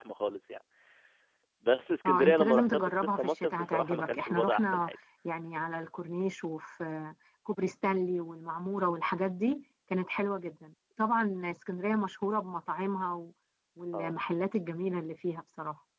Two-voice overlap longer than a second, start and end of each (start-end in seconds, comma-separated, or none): 2.0-5.0